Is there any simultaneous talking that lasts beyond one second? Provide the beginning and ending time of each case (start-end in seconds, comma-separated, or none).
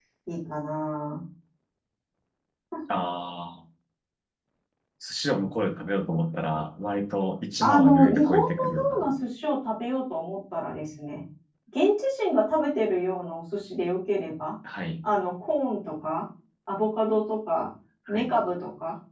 7.6-9.1